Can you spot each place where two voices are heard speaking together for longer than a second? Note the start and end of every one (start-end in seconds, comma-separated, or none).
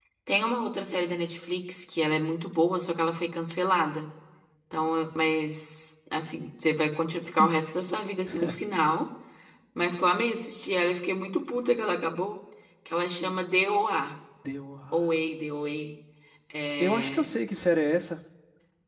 none